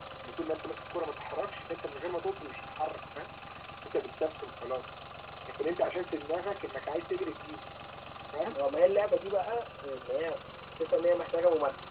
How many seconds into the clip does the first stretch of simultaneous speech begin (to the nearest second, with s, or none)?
none